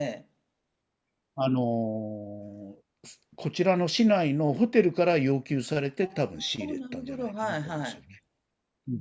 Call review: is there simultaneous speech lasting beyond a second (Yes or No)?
Yes